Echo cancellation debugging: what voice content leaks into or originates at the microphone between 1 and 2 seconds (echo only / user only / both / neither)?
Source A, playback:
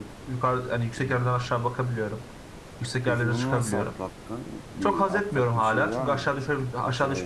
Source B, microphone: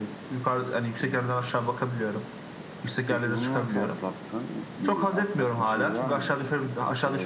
echo only